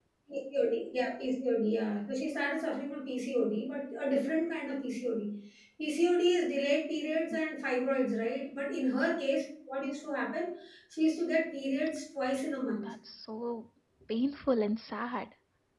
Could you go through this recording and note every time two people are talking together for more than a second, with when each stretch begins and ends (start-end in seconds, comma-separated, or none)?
none